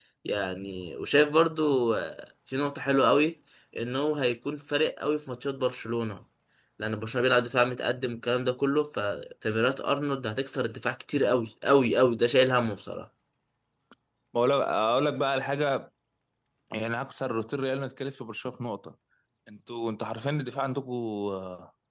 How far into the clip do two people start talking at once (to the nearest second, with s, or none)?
none